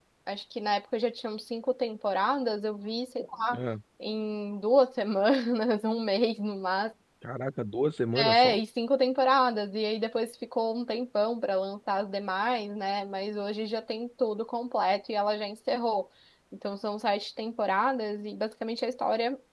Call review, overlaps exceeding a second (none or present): none